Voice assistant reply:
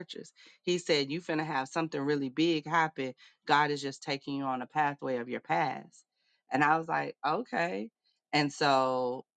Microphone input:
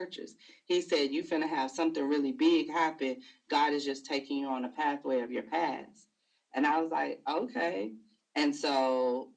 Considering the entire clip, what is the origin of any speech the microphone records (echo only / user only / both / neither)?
echo only